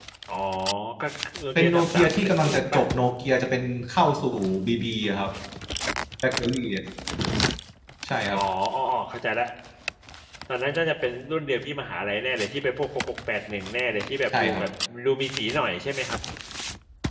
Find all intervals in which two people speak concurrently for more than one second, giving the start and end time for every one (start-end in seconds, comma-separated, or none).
1.6-2.8